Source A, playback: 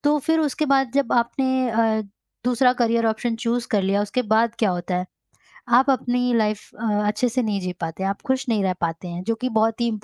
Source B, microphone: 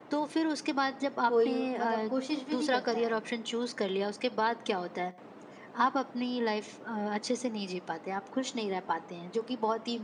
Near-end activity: present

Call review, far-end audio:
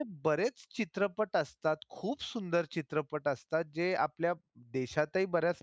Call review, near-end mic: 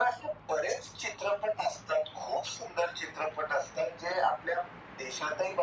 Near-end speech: none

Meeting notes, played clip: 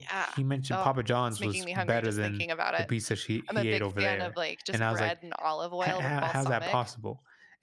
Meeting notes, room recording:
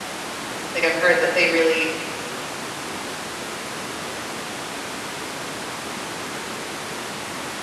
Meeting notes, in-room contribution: present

